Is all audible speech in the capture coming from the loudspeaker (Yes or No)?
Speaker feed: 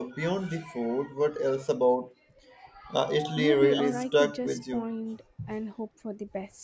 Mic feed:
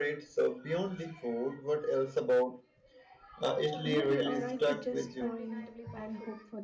No